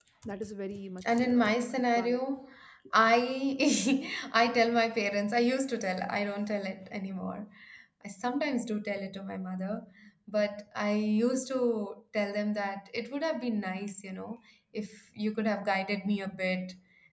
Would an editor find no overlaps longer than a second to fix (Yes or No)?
No